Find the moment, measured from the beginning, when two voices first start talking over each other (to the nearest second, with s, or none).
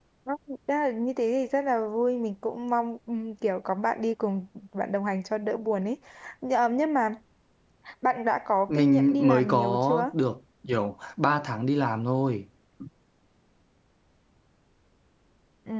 9 s